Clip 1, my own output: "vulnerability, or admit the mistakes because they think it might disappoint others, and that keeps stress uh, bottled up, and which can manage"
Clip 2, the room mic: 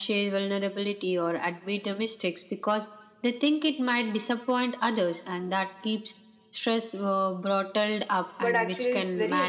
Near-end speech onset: 8.4 s

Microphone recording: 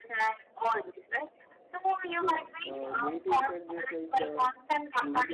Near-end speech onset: 2.1 s

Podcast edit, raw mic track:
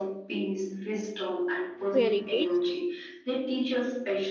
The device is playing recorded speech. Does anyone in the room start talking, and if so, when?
1.9 s

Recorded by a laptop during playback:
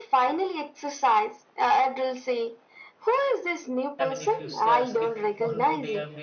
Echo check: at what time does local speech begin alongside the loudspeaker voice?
4.0 s

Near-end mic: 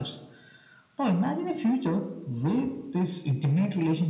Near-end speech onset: none

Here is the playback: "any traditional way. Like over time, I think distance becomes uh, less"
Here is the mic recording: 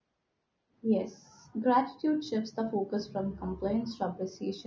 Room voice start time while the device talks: 0.8 s

